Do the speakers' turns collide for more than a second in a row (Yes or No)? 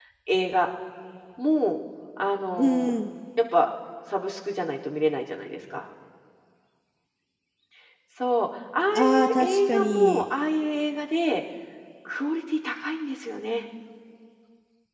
Yes